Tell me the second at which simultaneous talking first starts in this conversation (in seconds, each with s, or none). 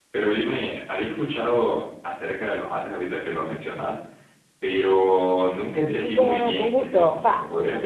5.8 s